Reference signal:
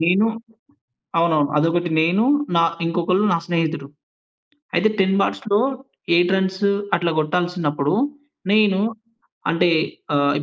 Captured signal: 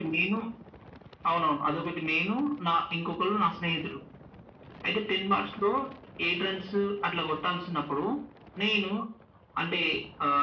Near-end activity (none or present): none